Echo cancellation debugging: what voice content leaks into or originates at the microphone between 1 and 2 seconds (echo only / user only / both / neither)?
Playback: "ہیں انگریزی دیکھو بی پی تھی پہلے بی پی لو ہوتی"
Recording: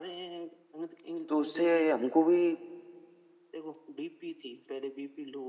both